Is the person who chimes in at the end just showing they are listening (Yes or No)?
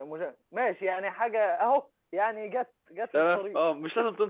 No